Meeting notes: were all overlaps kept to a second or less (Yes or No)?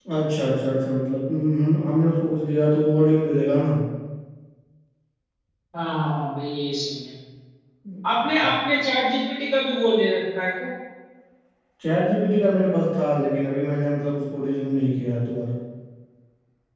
Yes